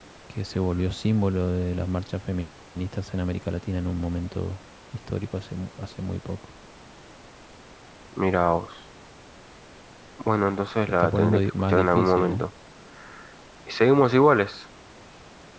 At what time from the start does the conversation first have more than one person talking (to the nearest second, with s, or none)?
11 s